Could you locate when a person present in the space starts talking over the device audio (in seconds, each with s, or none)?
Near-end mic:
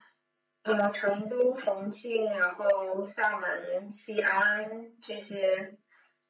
none